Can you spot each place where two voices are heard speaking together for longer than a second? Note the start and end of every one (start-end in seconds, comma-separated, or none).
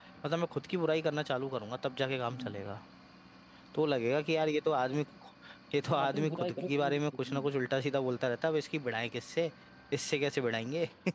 5.9-7.5